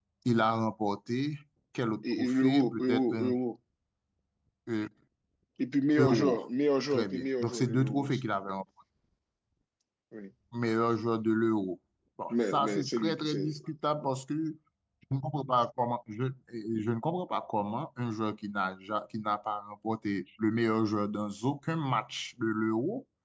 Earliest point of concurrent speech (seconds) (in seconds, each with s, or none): 2.1 s